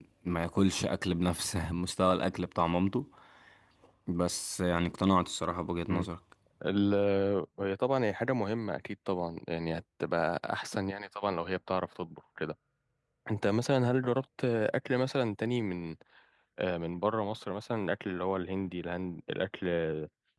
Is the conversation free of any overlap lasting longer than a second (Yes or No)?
Yes